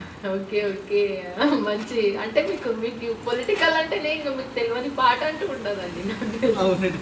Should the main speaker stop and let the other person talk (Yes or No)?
Yes